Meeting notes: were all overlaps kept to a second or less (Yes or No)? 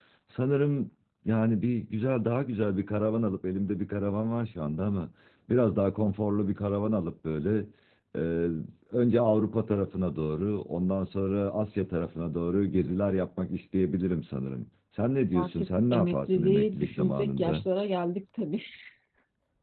No